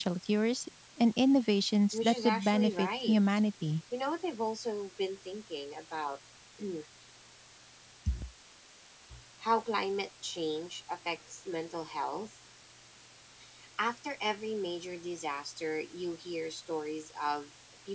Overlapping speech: Yes, from 1.9 s

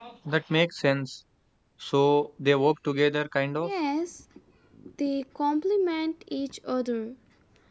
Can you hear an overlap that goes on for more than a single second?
No

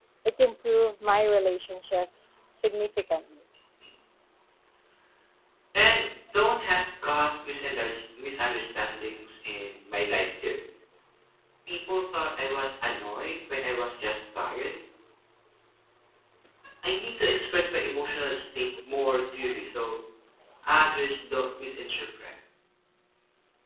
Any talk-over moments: No

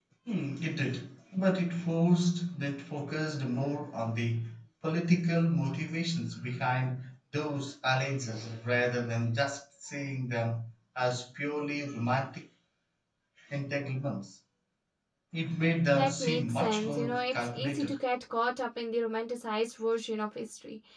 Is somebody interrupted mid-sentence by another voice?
Yes, from 15.9 s

